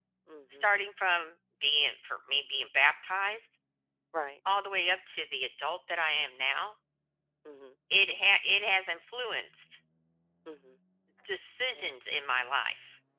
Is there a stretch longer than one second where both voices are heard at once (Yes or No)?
No